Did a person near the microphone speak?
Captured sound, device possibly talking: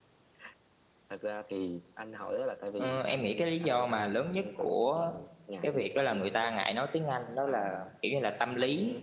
Yes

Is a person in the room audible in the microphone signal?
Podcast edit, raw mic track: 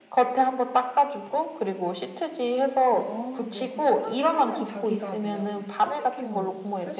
Yes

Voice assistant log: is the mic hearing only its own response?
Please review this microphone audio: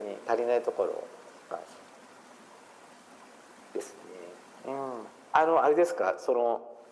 Yes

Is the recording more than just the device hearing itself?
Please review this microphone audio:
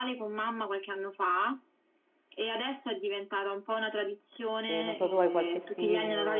Yes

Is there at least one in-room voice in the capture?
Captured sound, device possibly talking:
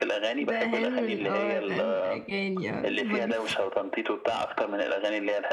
Yes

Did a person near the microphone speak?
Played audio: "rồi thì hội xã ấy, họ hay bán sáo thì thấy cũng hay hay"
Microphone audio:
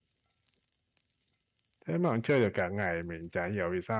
Yes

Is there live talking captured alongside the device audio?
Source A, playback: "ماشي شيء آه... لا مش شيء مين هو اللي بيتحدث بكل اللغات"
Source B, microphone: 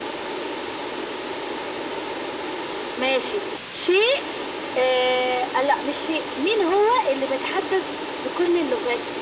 No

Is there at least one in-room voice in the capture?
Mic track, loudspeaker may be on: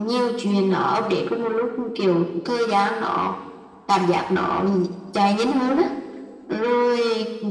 No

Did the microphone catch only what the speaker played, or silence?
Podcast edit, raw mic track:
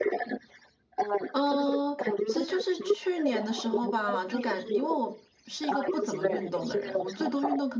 No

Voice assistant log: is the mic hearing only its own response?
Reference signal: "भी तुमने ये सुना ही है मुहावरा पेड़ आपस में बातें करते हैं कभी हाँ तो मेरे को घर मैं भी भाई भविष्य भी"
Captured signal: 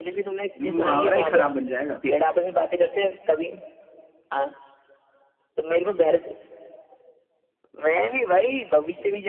No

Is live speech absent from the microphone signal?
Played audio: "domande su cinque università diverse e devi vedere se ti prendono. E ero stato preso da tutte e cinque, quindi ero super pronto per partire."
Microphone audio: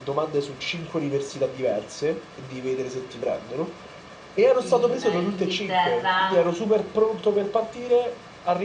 No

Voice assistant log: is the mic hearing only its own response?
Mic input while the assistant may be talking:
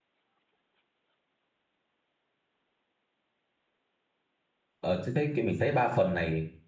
No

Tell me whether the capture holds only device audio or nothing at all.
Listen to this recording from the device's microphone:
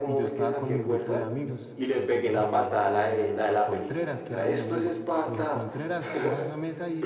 No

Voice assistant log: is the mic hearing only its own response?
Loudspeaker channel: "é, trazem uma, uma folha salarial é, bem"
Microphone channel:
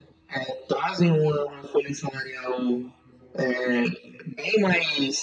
Yes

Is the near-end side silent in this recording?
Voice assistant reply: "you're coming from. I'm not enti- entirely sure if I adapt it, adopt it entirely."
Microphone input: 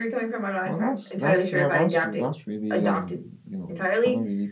No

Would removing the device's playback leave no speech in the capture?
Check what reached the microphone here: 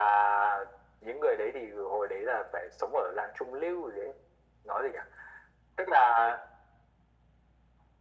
Yes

